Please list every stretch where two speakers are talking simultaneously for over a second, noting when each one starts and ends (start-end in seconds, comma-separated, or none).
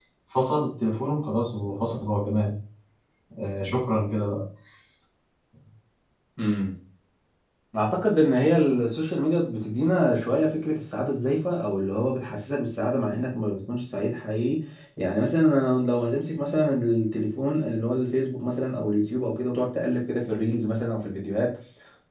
none